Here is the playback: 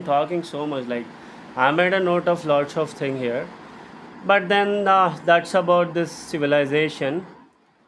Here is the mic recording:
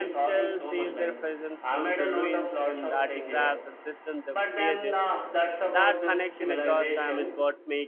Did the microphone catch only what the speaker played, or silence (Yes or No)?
No